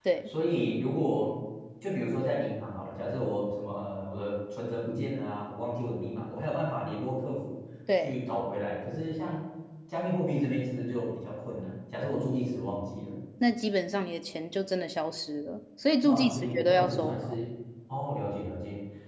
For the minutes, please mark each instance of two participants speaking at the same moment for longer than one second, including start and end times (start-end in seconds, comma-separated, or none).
16.0-17.4